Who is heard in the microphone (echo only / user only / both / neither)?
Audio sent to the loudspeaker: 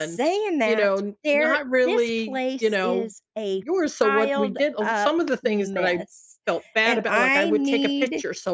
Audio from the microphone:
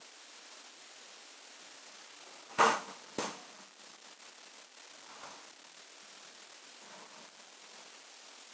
neither